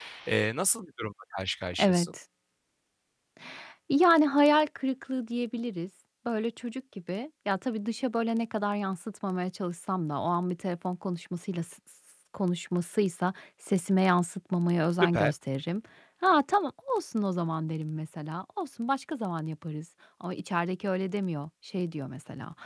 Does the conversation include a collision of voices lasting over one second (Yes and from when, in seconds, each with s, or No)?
No